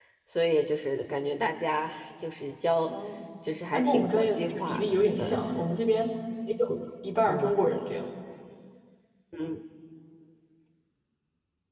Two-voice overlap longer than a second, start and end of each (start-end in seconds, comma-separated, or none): 3.7-5.2